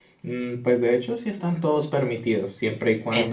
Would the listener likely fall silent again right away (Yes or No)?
Yes